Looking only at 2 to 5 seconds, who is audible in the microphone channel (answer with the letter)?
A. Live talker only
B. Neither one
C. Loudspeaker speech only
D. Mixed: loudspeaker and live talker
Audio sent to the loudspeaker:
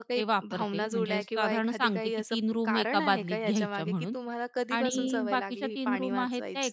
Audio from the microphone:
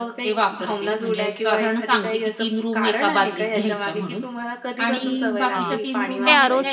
C